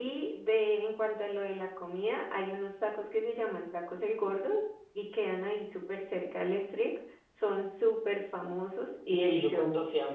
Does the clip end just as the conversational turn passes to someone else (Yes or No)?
Yes